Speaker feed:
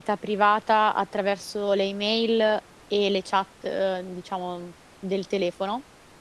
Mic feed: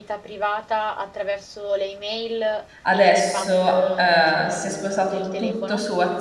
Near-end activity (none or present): present